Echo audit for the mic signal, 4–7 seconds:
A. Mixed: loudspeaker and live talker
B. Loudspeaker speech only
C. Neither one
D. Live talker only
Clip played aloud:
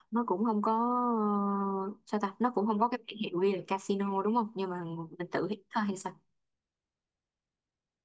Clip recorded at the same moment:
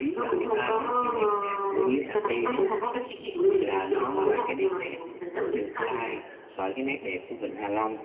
A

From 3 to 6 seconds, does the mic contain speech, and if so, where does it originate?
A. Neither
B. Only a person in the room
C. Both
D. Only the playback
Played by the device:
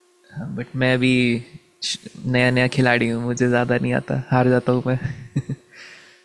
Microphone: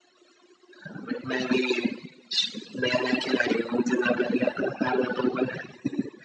D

